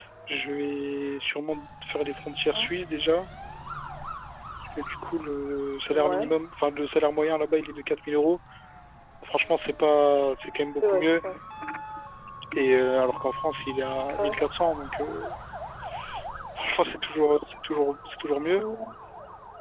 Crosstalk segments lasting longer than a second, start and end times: none

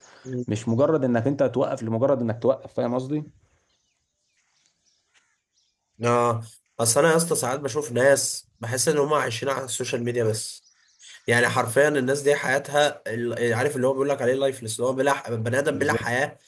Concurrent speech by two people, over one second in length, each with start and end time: none

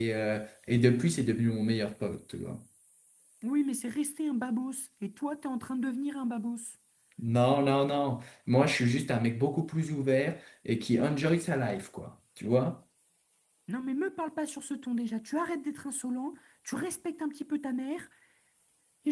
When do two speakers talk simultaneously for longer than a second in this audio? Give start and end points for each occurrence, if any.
none

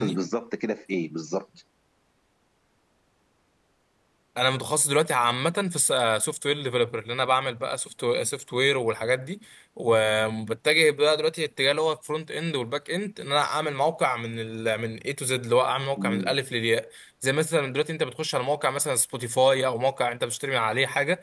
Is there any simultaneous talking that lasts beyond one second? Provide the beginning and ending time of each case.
none

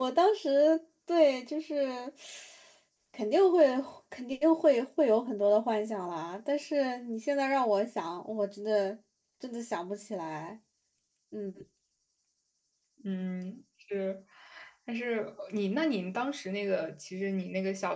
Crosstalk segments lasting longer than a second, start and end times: none

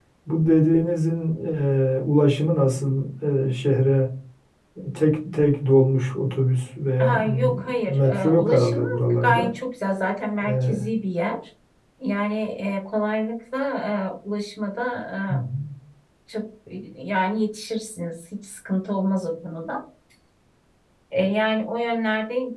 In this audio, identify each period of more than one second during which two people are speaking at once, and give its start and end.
7.0-9.5

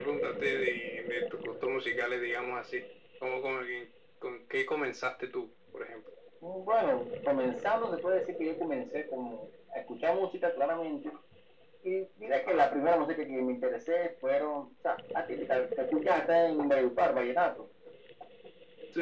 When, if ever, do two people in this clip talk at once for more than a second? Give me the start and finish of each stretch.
none

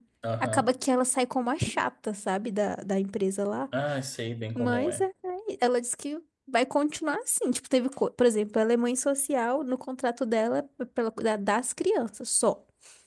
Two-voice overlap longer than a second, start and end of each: none

